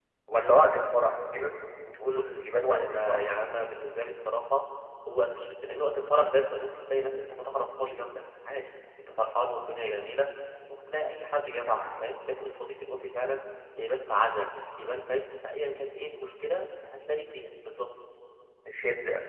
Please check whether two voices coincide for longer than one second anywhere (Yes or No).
Yes